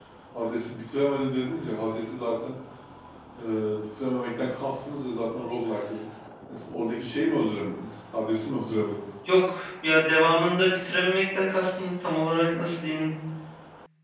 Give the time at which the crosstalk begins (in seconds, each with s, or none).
none